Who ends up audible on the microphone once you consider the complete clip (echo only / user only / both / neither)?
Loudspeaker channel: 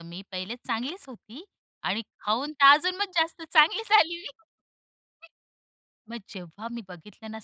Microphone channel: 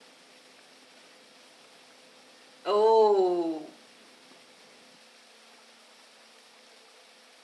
user only